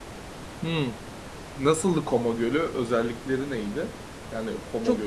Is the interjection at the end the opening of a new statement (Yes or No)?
Yes